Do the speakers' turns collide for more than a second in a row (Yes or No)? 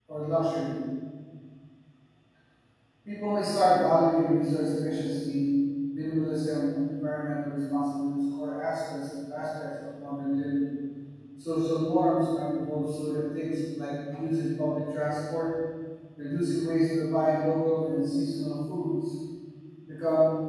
No